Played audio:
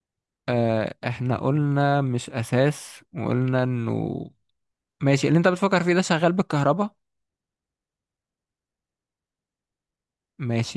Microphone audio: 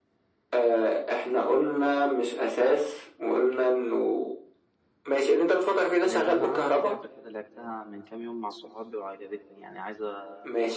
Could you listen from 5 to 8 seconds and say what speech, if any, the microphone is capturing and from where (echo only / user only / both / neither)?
both